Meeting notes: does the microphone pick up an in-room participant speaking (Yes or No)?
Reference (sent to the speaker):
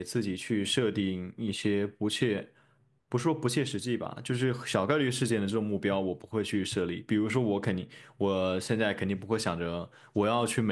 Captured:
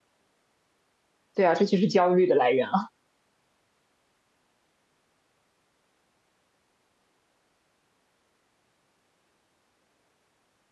Yes